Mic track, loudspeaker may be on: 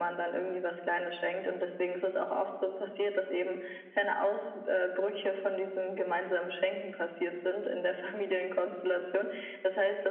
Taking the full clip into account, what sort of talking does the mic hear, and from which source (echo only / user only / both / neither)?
echo only